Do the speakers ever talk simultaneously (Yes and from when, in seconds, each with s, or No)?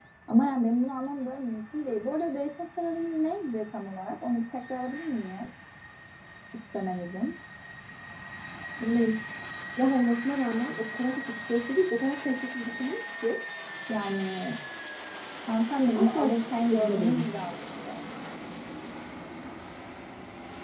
Yes, from 15.9 s